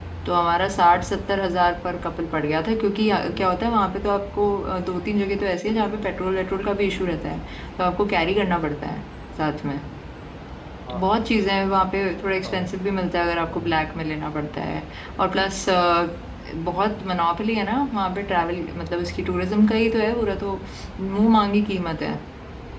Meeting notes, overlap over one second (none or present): none